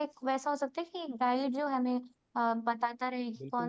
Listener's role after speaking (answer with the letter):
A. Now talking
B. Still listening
A